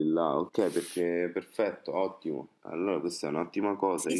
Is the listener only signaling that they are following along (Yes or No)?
No